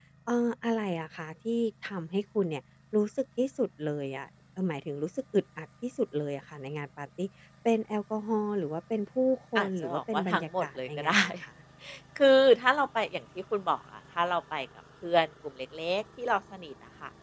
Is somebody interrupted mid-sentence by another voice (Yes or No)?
Yes